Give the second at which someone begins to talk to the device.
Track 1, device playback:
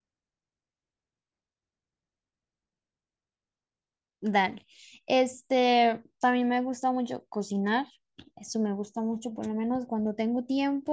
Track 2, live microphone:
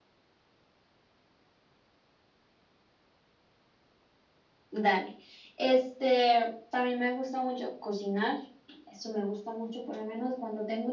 none

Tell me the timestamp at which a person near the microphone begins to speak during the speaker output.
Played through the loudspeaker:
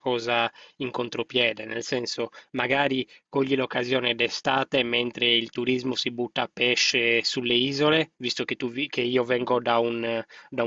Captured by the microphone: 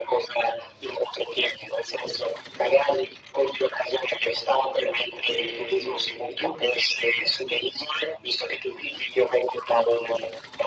5.2 s

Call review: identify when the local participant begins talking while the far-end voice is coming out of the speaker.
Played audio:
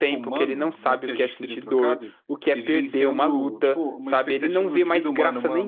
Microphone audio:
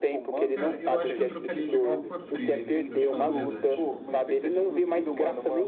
0.5 s

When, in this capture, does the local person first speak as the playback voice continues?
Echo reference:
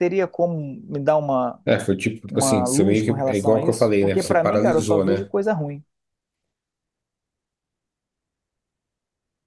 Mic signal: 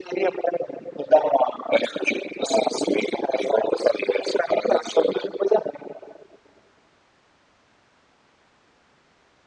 none

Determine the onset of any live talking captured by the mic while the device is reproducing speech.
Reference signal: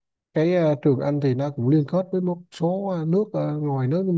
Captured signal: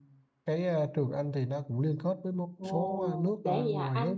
2.6 s

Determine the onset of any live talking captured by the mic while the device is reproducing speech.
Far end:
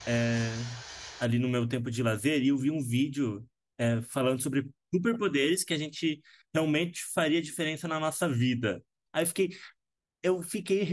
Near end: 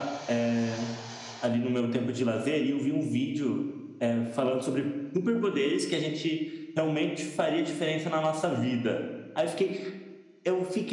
none

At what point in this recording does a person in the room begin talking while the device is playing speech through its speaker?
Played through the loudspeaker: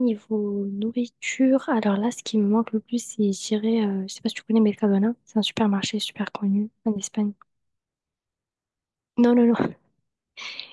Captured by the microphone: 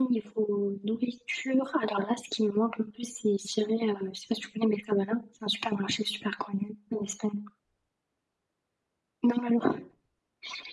none

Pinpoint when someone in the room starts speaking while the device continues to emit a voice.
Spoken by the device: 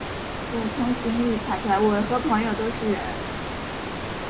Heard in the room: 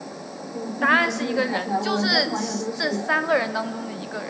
0.8 s

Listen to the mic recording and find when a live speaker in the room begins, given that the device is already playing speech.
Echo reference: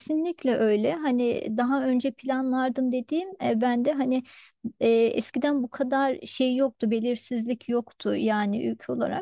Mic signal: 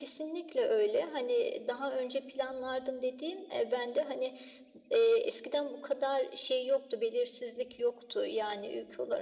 none

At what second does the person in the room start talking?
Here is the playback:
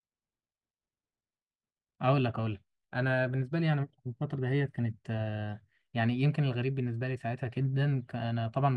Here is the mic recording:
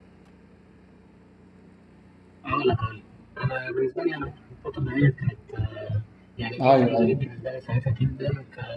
6.6 s

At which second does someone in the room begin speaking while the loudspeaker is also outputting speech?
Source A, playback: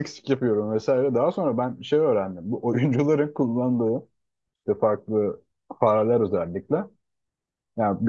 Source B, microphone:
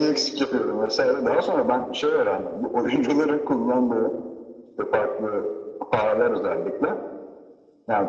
none

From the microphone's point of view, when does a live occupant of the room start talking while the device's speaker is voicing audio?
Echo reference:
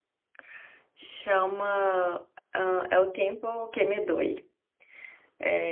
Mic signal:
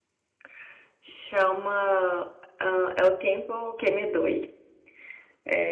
none

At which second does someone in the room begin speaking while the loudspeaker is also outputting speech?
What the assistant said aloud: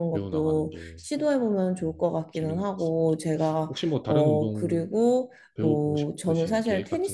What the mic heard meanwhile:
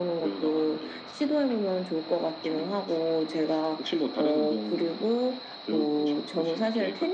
none

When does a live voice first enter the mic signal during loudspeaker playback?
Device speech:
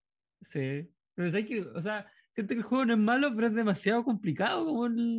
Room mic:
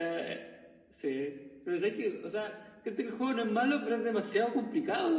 none

